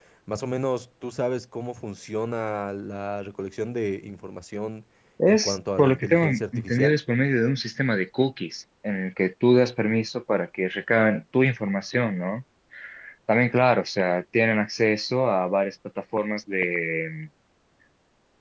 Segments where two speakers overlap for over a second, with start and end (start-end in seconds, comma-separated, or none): 5.3-7.0